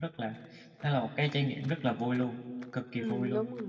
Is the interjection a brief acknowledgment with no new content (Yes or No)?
No